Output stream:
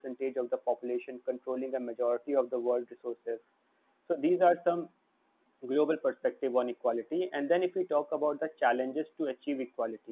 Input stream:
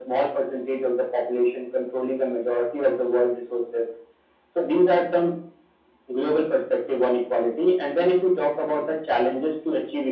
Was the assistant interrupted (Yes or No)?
No